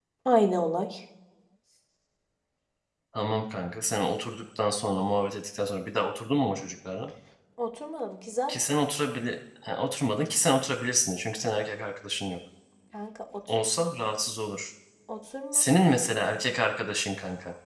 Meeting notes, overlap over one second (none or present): none